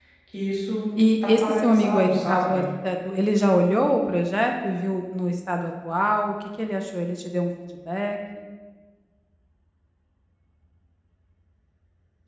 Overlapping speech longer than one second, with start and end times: 1.2-2.6

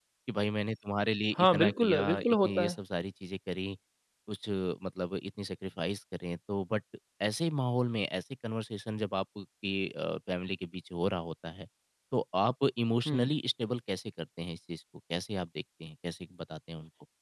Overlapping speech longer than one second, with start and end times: 1.4-2.8

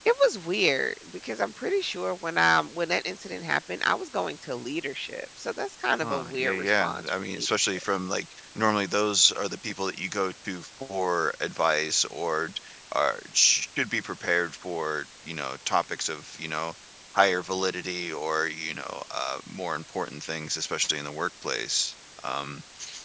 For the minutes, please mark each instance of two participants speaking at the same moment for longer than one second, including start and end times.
6.0-7.8

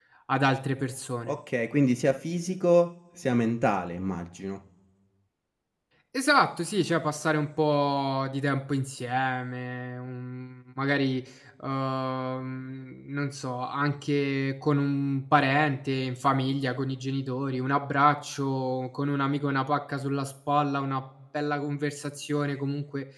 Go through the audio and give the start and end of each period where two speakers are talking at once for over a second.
none

